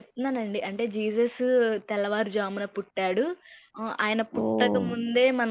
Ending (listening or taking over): listening